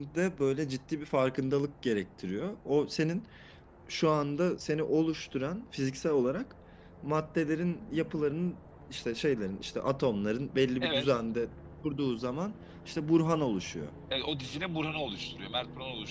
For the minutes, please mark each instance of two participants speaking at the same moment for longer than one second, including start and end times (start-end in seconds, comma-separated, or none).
none